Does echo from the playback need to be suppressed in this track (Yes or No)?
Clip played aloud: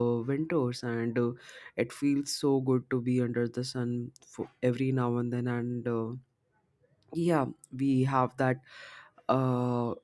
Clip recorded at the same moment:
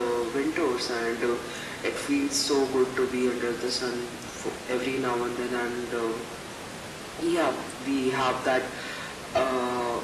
Yes